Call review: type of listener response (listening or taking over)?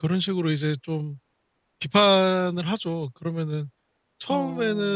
listening